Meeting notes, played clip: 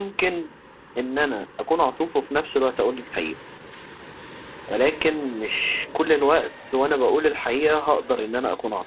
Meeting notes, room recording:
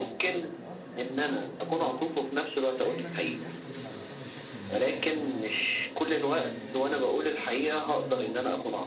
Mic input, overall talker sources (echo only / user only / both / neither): both